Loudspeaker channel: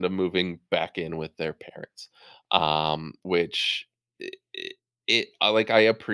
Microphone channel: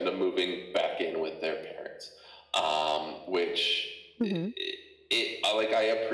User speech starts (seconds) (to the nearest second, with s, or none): 4 s